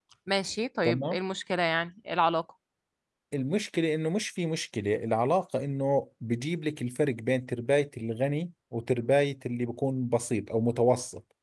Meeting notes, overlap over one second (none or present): none